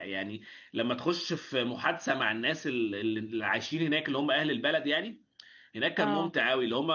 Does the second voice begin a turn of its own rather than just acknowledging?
No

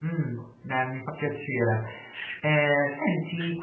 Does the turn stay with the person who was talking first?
Yes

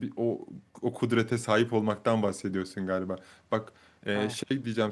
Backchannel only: Yes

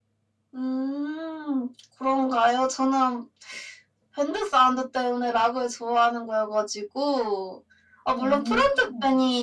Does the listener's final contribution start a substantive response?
No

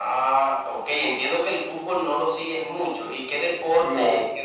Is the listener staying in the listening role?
Yes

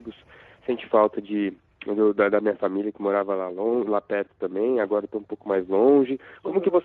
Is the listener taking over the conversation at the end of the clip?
No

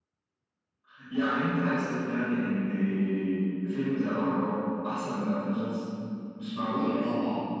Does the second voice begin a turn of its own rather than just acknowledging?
Yes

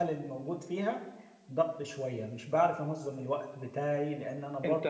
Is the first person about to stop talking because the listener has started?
Yes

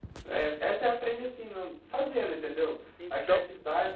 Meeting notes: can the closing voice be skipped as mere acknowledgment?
Yes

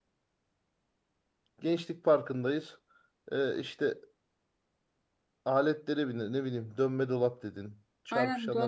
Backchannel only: No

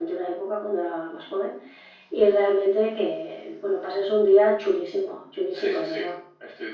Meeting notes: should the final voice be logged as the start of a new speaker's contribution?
Yes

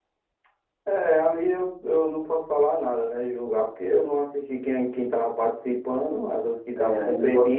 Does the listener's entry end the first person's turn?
Yes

